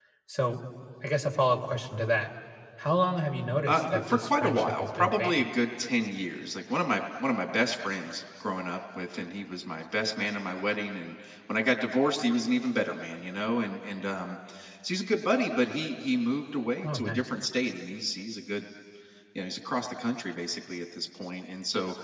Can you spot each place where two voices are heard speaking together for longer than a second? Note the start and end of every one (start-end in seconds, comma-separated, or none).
3.7-5.5